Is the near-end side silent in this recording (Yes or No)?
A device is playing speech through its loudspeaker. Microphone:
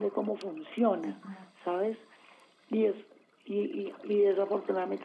No